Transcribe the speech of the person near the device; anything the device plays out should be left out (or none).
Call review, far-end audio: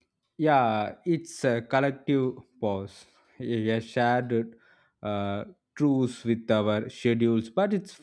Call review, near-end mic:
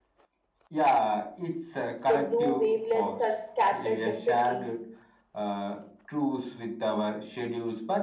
The blue wavelengths are scattered differently,